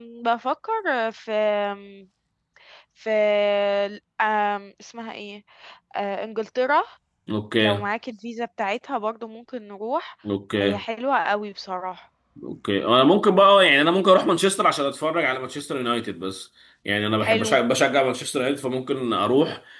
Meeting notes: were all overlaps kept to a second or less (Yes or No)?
Yes